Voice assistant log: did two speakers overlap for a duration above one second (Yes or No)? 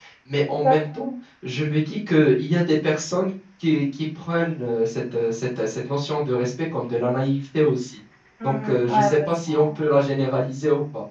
Yes